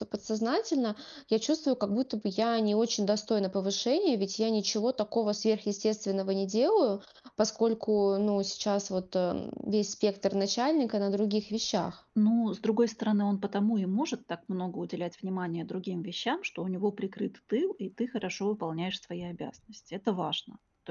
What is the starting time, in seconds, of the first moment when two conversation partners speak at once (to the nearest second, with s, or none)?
none